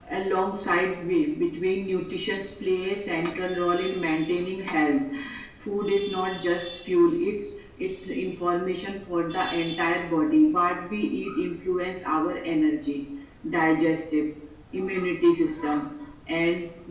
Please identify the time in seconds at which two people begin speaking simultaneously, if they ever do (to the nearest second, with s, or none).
none